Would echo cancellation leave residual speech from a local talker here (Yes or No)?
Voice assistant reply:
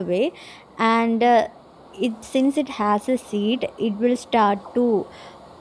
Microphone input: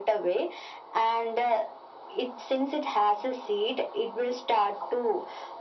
No